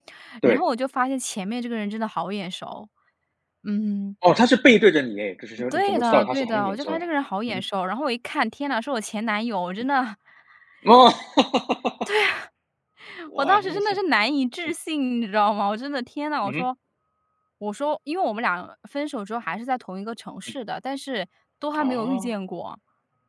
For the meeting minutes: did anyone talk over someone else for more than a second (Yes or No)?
Yes